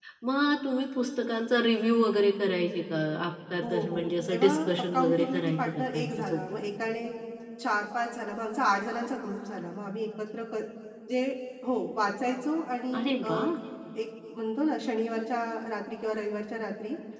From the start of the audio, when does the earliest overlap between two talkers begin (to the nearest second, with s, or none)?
4 s